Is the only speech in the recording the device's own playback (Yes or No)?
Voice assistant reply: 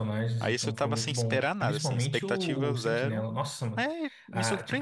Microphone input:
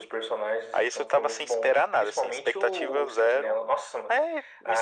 Yes